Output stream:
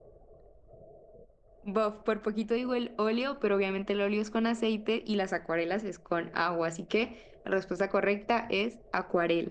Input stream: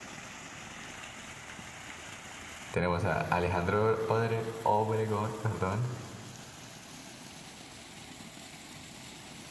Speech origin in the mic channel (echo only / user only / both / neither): user only